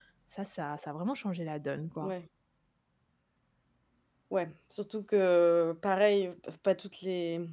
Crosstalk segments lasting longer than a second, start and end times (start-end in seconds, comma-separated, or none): none